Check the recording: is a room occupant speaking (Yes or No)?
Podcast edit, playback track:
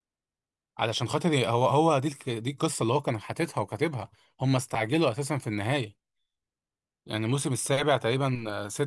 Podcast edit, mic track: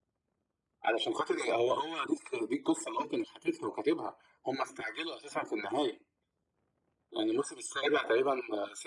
No